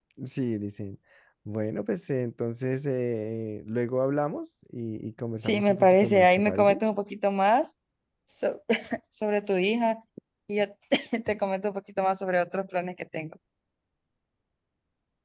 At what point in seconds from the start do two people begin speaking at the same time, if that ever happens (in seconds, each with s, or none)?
5.4 s